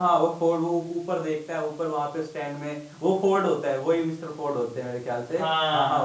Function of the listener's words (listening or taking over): taking over